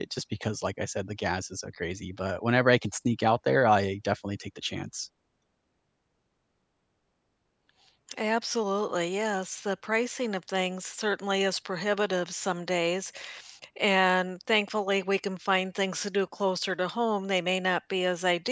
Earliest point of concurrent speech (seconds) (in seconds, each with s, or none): none